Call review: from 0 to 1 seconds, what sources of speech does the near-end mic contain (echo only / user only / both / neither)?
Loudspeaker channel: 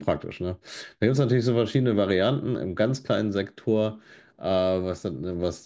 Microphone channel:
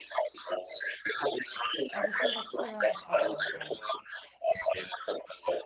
echo only